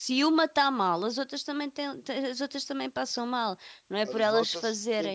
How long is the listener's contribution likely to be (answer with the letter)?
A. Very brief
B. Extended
B